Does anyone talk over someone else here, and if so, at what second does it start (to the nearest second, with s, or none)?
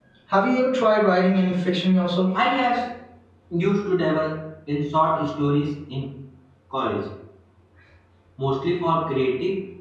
none